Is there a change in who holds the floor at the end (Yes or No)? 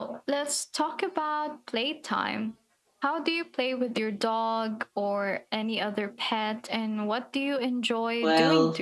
Yes